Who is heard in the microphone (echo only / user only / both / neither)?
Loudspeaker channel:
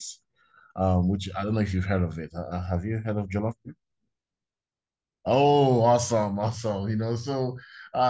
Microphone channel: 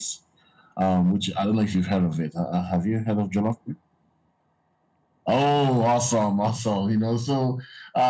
echo only